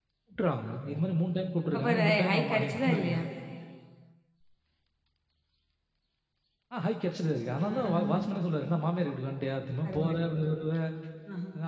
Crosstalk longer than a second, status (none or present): present